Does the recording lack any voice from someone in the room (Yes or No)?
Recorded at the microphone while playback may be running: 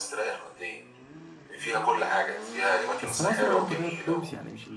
No